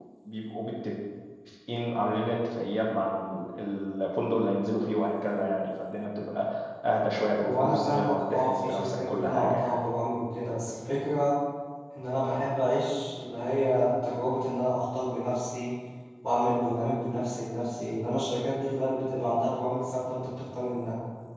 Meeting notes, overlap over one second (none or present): present